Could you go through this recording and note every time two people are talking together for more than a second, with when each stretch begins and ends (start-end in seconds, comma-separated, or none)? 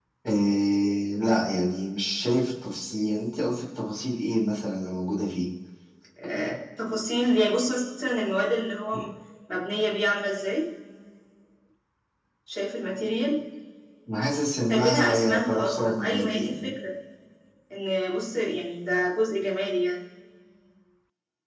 14.7-16.7